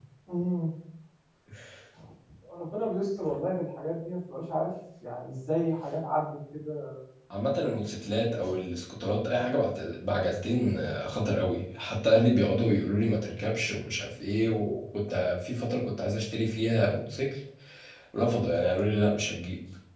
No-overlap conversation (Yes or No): Yes